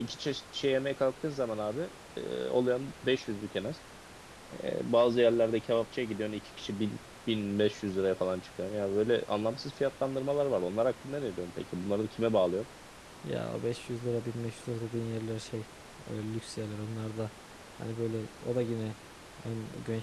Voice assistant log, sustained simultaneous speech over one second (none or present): none